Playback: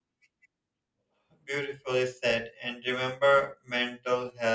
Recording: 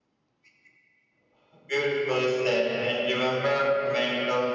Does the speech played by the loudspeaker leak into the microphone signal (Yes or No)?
Yes